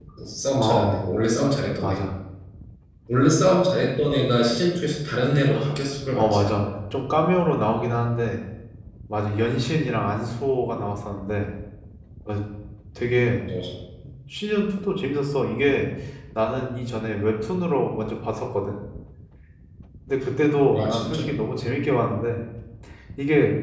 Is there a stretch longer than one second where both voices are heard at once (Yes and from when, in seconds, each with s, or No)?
No